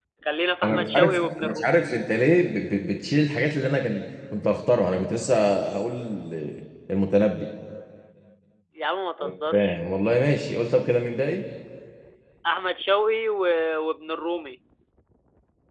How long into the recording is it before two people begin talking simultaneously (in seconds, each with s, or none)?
0.6 s